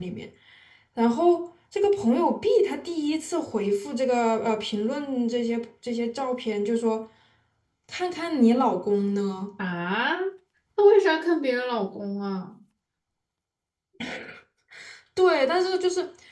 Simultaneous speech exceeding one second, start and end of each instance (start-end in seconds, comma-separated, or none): none